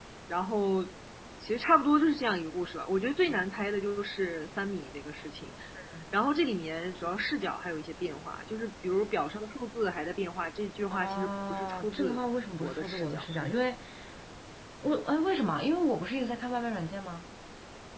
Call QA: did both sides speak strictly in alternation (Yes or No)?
No